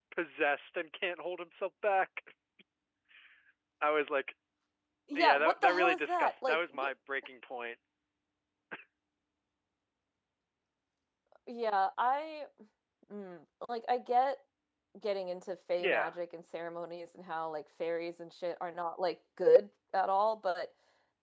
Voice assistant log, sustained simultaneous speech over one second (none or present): present